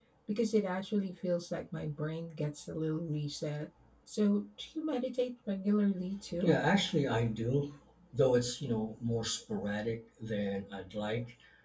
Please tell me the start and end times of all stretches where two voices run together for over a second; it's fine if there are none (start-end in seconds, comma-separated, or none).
none